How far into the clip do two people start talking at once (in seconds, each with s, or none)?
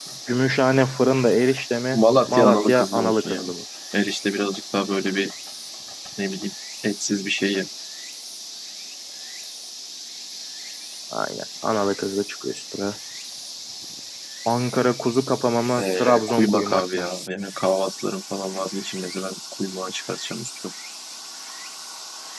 1.9 s